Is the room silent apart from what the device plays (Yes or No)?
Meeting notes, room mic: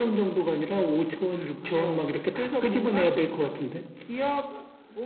Yes